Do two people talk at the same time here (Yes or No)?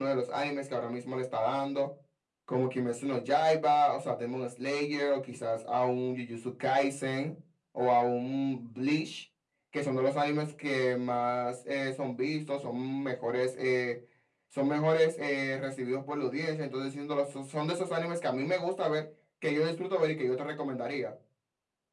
No